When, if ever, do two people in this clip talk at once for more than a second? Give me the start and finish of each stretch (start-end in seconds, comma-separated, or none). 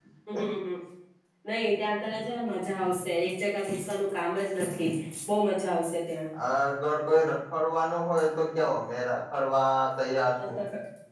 none